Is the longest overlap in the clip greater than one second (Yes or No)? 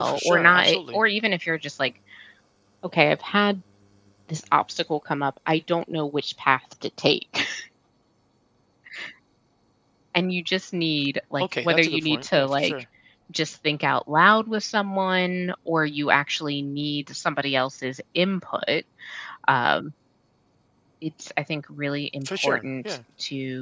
Yes